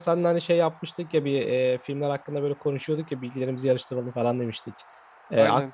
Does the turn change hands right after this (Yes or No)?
No